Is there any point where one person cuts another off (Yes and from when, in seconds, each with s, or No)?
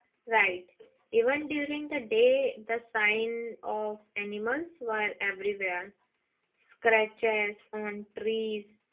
No